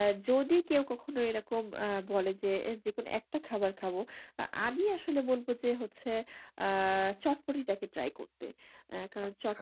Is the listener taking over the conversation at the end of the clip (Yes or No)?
Yes